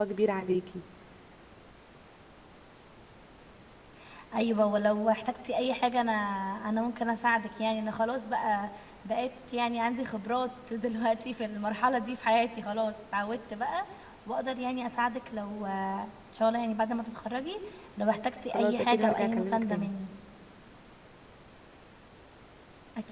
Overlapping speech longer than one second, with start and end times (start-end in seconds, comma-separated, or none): 18.5-19.9